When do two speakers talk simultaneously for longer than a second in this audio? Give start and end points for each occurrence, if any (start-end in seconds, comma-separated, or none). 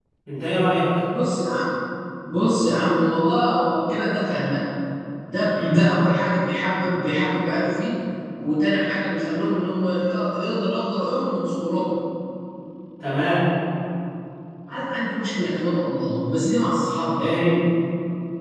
none